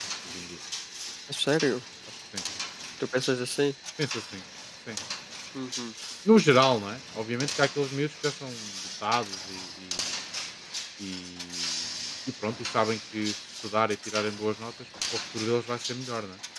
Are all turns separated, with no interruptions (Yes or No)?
Yes